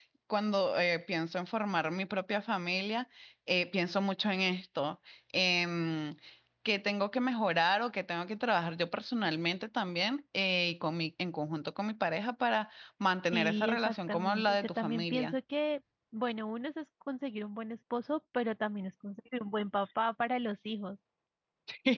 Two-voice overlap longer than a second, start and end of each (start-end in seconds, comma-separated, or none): 13.3-15.3